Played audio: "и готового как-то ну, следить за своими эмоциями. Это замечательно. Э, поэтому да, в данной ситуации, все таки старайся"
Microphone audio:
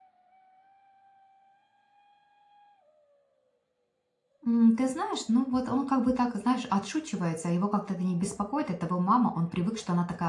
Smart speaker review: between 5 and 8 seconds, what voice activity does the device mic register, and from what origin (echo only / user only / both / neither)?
user only